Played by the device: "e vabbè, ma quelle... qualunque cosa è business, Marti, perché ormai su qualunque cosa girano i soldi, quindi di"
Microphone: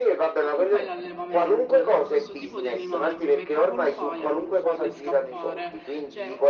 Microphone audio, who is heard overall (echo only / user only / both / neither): both